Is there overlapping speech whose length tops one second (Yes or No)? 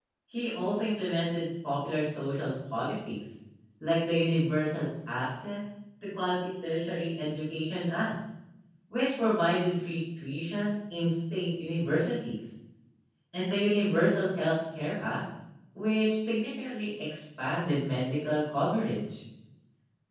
No